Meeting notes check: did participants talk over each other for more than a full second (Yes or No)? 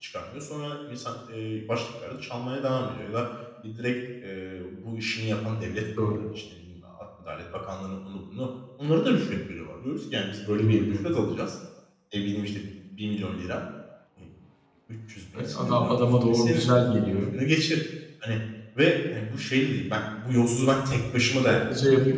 Yes